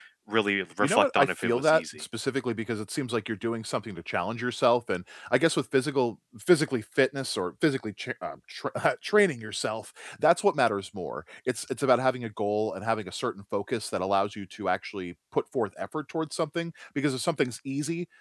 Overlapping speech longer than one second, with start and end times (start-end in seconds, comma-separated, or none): 0.8-2.0